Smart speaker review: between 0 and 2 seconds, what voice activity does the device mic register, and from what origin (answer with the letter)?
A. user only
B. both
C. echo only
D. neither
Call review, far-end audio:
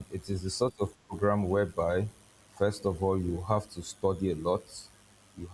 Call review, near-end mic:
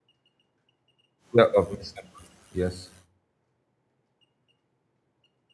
A